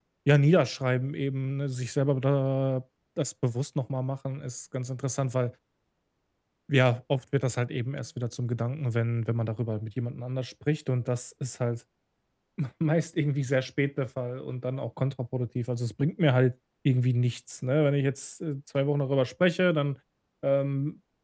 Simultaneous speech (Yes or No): No